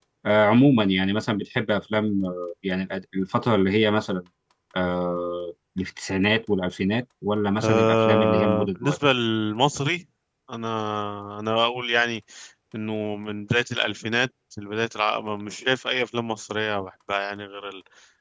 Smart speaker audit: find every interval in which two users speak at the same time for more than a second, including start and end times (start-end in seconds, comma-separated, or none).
7.6-9.0